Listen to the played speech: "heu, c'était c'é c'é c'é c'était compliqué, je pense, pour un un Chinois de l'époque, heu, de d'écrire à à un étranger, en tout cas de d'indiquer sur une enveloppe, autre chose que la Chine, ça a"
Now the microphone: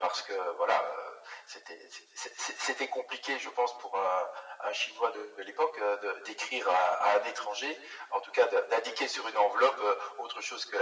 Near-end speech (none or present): none